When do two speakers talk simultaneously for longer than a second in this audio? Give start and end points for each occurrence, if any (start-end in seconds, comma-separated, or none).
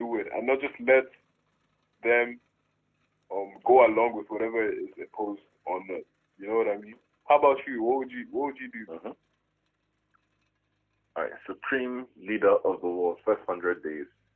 none